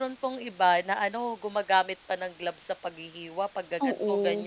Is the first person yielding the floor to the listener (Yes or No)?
No